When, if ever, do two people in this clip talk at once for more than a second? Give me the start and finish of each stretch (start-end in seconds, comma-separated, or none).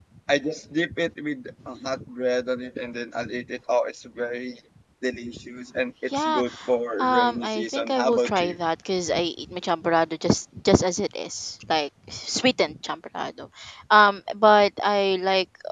7.0-8.6